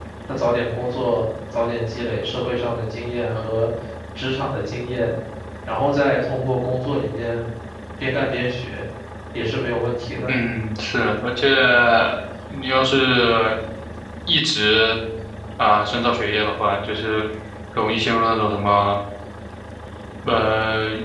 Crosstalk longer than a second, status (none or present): none